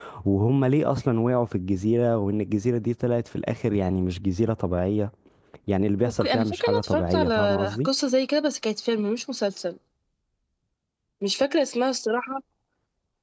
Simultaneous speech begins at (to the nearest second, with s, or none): 6 s